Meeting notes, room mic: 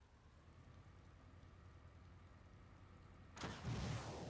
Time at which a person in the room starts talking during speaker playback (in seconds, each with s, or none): none